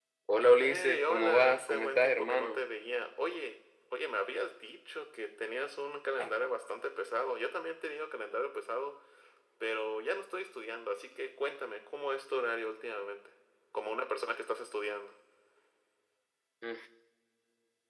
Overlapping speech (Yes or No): Yes